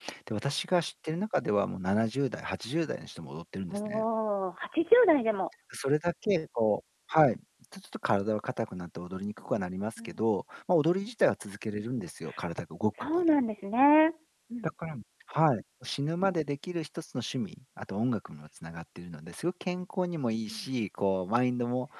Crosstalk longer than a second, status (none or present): none